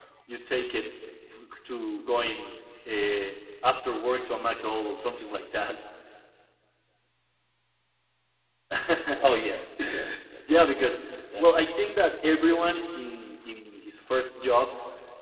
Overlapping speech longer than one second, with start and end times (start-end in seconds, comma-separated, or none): none